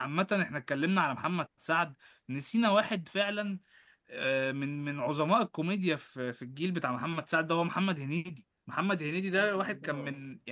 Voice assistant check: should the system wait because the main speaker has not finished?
Yes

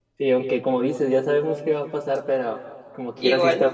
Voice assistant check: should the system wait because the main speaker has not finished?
Yes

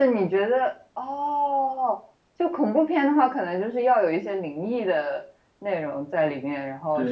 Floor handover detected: Yes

